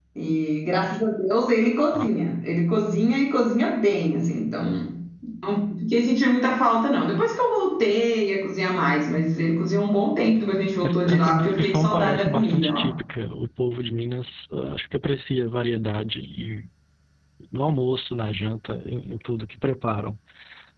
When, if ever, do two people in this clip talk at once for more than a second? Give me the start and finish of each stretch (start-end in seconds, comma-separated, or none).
10.8-12.9